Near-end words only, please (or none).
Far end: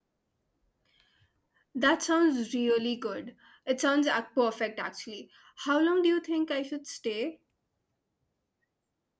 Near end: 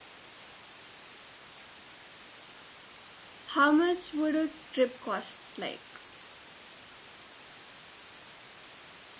How much would a trip cost like